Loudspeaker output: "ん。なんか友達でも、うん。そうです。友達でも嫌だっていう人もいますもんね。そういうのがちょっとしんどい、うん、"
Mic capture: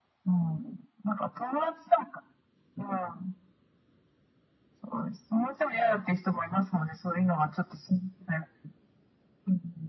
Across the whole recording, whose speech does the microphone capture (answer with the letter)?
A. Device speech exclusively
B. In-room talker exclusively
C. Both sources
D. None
A